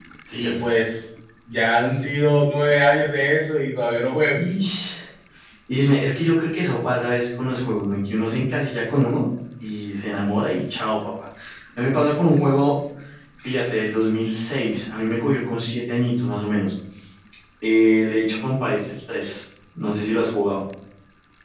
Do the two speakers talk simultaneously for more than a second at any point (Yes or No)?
No